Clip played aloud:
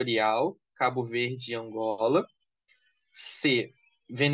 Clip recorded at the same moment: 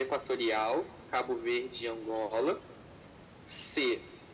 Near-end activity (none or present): none